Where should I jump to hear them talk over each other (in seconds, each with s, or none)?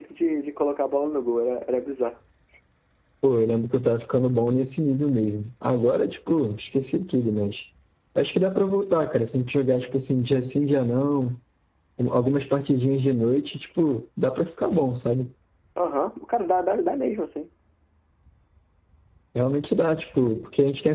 none